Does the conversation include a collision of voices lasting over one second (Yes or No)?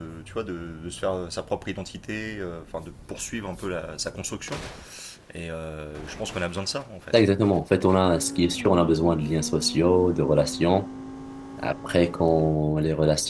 No